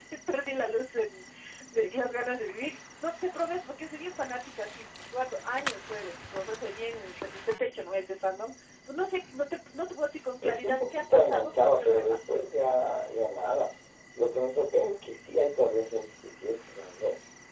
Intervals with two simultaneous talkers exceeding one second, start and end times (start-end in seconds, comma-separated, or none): 10.4-12.2